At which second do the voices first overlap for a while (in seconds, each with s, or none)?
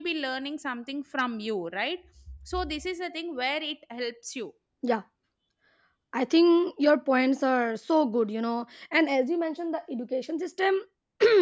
none